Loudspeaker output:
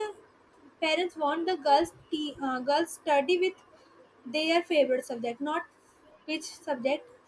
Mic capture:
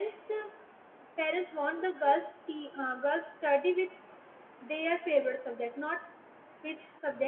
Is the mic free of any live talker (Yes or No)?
Yes